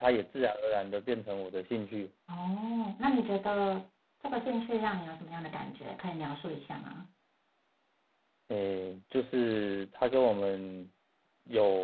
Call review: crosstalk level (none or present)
none